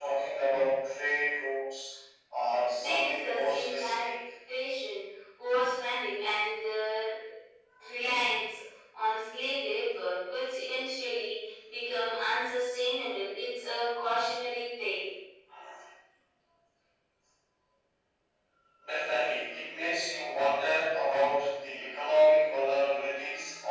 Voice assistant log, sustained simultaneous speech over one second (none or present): present